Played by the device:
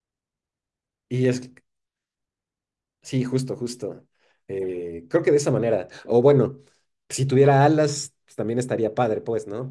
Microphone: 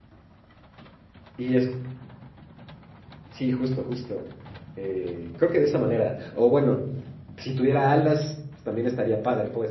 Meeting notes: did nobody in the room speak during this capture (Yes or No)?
Yes